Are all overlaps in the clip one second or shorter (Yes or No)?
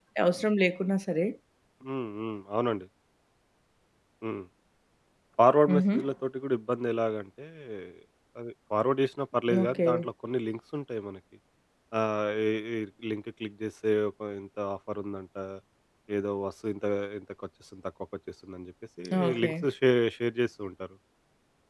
Yes